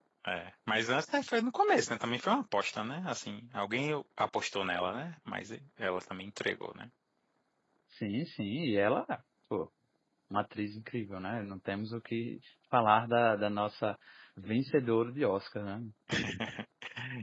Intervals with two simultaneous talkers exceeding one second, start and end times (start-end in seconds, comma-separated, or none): none